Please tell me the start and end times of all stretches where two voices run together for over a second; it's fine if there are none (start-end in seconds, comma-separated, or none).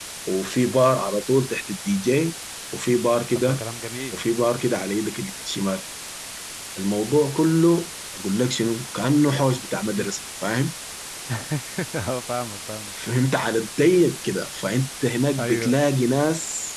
none